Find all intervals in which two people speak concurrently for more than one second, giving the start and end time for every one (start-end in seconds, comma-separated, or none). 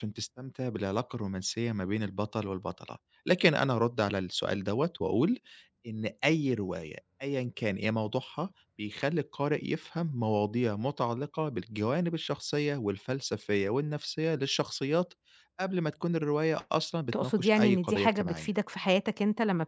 17.1-18.5